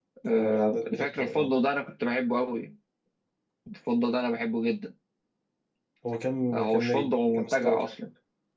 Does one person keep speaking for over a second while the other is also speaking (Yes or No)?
Yes